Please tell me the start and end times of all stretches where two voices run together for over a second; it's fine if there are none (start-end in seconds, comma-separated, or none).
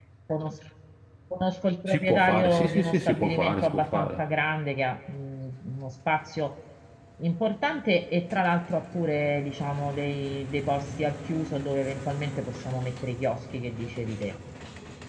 1.9-4.2